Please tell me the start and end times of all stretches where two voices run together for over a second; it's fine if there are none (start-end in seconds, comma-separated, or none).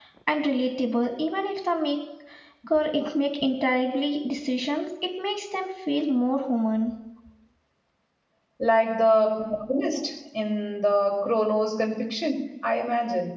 none